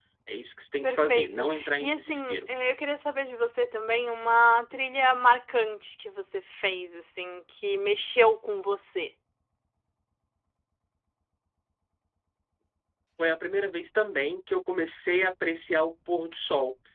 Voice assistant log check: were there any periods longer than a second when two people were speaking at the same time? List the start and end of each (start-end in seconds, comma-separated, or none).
0.8-2.5